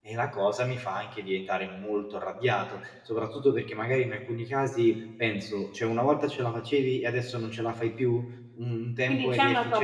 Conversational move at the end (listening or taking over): taking over